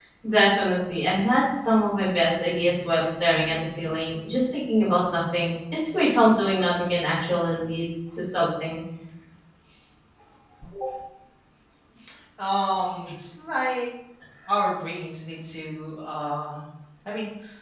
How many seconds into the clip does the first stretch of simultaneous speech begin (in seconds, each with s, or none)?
none